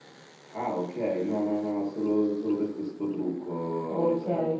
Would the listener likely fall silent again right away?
No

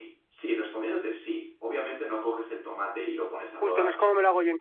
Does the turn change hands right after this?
Yes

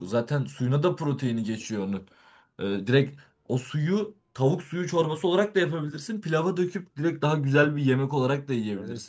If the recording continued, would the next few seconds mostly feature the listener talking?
Yes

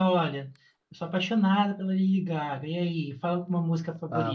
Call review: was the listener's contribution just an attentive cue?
No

